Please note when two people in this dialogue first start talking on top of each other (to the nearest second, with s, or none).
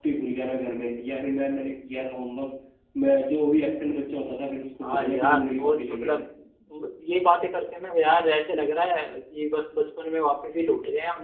5 s